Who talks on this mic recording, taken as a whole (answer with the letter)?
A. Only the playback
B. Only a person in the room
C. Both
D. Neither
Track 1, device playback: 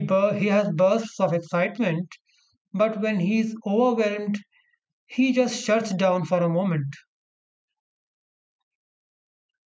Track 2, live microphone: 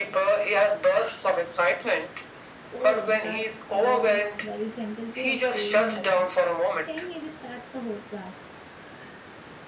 C